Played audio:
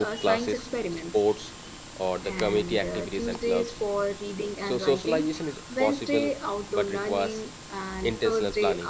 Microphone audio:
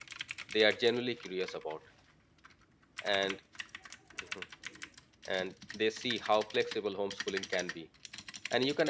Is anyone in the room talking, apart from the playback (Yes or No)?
Yes